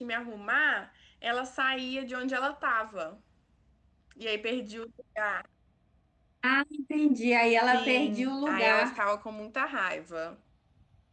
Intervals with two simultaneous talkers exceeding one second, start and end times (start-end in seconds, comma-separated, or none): 7.7-9.0